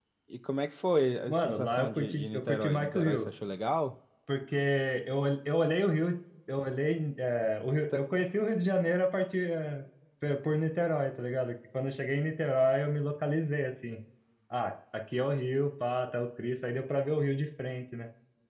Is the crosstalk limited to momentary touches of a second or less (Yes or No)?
No